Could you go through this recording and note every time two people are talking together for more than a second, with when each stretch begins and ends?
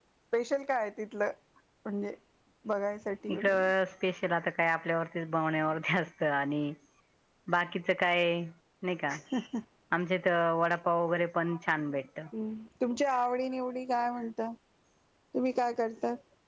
none

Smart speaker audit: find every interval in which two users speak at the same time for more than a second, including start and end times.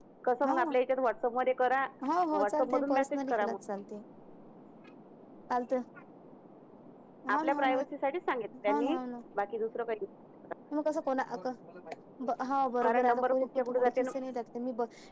2.3-3.6, 12.8-14.1

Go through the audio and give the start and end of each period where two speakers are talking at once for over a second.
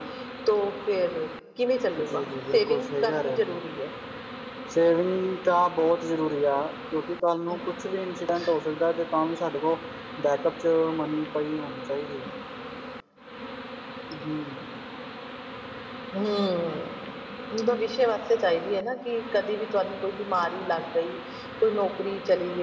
2.0-3.6

